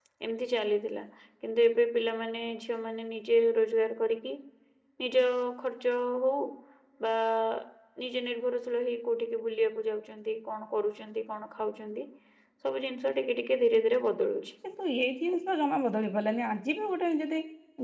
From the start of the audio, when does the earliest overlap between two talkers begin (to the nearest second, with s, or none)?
none